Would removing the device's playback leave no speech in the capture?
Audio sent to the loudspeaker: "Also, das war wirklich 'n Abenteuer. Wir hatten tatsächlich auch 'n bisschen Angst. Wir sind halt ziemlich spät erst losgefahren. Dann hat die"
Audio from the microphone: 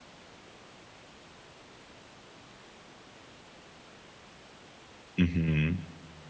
No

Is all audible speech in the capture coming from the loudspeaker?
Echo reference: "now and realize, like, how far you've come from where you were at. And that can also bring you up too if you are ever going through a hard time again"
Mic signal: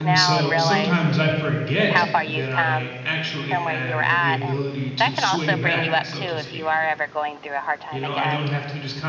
No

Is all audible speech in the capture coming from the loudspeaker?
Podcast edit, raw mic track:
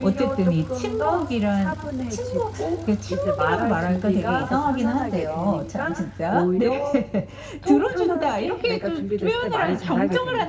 No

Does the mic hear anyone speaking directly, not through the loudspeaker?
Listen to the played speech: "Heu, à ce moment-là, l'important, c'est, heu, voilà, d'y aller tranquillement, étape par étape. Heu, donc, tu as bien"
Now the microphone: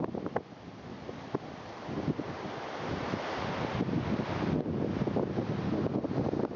No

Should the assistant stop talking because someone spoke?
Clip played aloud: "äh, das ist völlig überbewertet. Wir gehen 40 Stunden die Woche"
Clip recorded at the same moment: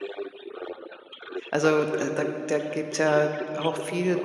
Yes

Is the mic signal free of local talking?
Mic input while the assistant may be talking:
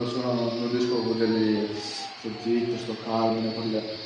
Yes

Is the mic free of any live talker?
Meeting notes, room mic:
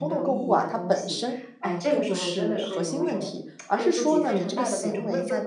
No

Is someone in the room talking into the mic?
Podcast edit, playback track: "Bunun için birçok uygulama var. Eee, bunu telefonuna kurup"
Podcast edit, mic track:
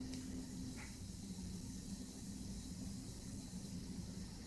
No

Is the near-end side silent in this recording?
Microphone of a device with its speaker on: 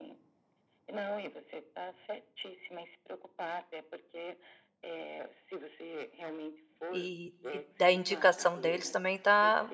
No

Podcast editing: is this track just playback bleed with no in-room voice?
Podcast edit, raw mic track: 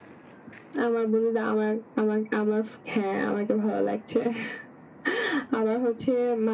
Yes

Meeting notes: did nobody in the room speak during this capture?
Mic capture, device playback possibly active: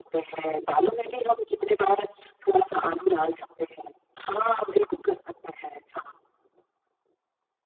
Yes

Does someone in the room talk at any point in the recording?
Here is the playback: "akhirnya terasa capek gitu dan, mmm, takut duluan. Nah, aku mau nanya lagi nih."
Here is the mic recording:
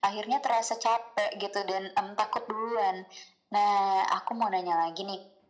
No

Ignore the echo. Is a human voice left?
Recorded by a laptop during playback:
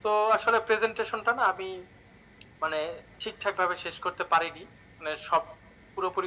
No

